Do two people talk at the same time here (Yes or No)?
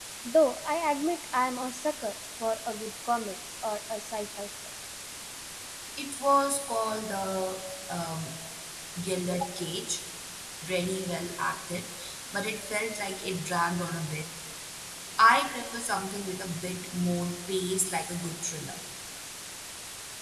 No